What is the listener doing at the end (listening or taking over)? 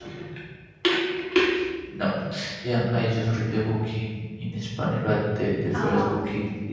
listening